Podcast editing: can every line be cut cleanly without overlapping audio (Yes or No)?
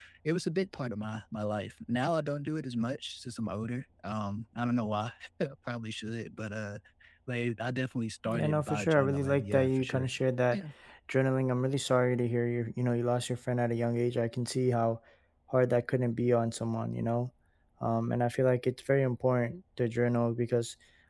No